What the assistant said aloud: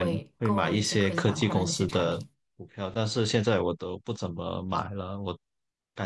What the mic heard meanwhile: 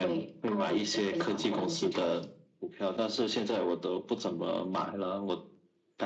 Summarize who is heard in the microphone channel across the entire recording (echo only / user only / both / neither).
echo only